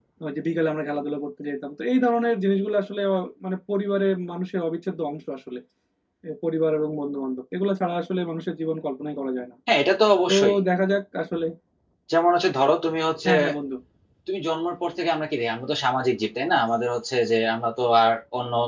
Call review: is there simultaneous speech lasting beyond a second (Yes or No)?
No